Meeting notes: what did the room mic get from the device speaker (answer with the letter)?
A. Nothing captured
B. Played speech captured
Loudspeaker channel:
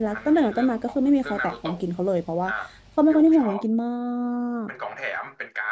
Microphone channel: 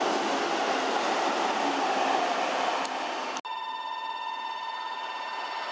A